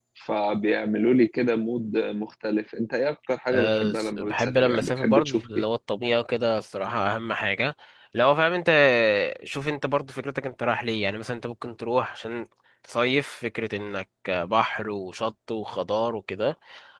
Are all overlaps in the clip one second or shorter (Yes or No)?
No